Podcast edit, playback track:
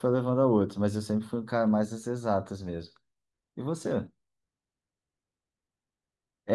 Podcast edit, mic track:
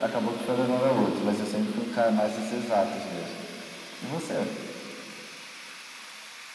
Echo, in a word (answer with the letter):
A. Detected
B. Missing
A